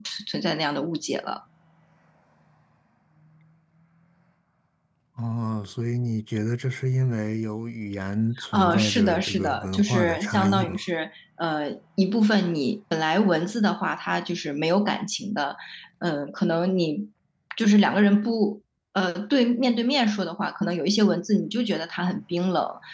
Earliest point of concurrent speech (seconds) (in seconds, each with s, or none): 8.4 s